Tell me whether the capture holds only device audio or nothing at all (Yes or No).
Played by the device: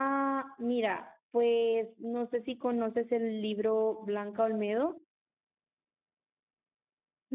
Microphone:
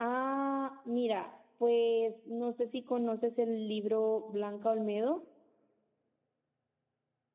Yes